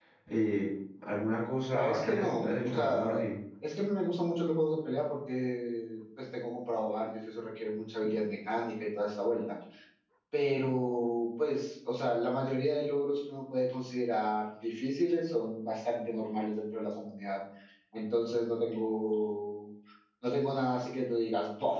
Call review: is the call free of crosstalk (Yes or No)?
No